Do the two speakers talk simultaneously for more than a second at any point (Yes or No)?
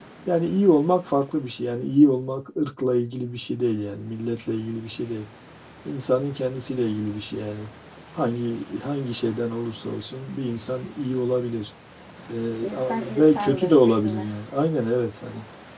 Yes